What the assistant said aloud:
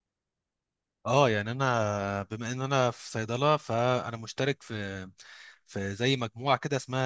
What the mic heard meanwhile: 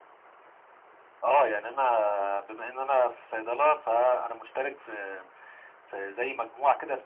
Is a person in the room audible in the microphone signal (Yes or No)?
No